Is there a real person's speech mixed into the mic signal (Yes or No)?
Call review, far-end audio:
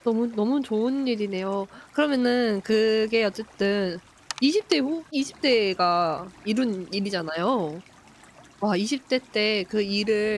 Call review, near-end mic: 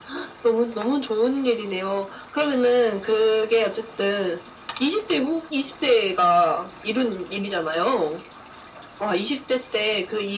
No